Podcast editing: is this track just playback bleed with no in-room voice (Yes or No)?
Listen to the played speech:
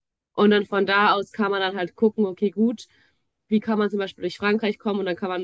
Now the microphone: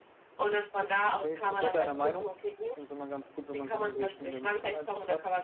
No